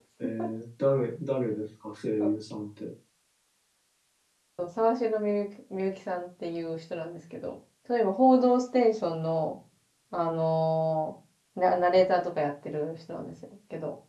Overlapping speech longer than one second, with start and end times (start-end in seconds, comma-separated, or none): none